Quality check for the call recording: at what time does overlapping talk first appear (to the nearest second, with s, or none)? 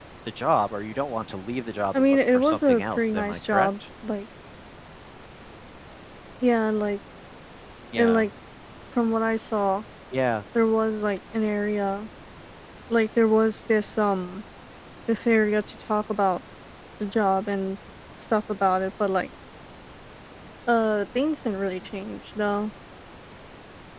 2 s